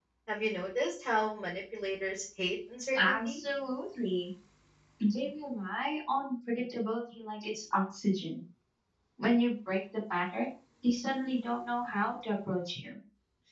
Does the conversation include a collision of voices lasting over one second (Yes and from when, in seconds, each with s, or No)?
No